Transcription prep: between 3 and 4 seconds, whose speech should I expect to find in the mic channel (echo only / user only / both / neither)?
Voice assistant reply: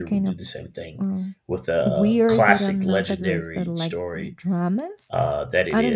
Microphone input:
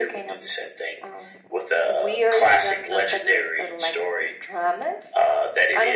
echo only